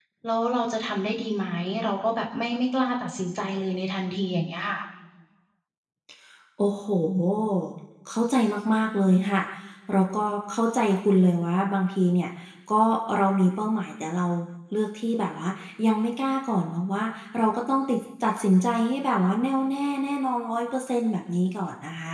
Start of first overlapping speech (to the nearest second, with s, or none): none